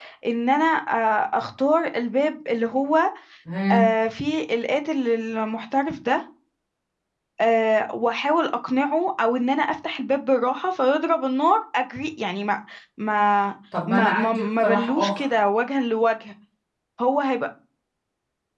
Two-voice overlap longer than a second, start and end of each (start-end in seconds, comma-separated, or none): 13.9-15.3